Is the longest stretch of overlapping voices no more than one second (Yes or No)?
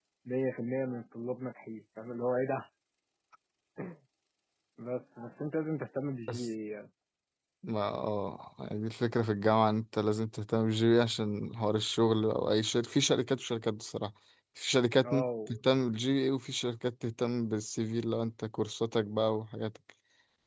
Yes